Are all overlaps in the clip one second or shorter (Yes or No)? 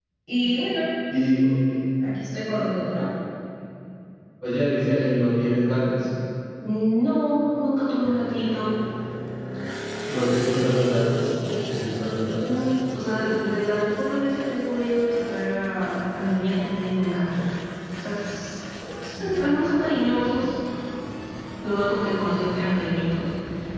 Yes